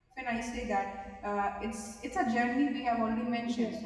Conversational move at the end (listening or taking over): listening